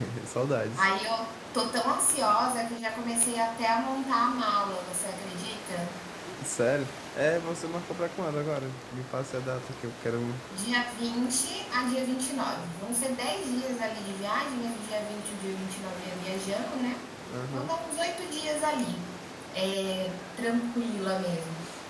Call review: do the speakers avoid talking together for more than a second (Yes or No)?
Yes